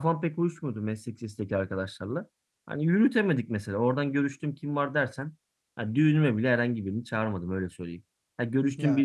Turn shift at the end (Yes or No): No